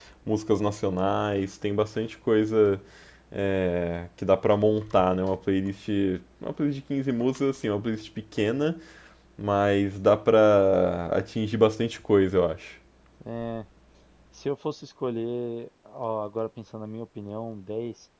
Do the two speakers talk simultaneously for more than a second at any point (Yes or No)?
No